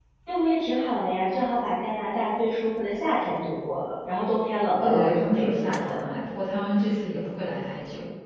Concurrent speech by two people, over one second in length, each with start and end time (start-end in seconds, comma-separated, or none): 4.8-6.0